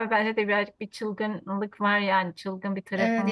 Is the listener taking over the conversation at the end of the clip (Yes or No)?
Yes